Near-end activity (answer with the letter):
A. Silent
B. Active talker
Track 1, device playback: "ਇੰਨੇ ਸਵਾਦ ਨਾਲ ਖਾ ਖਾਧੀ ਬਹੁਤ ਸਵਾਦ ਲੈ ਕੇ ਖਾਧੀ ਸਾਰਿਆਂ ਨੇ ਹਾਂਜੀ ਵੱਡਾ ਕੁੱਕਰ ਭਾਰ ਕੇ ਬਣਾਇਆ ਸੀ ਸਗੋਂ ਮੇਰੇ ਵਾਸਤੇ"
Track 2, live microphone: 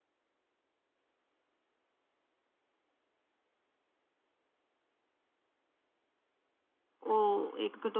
B